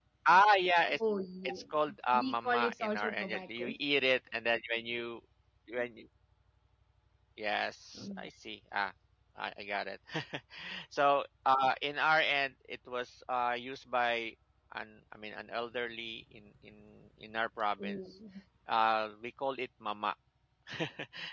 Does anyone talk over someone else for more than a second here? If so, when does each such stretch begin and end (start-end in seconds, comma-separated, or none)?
2.1-3.7